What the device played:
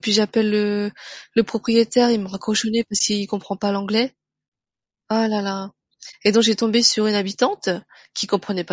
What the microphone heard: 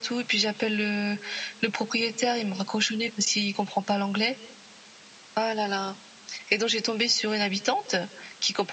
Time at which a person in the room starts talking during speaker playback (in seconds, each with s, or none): none